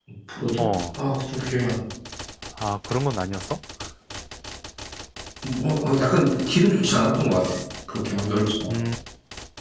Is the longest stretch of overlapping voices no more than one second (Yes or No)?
Yes